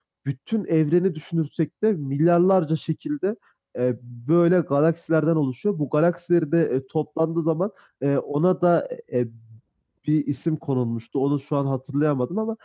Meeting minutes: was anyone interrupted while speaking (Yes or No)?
No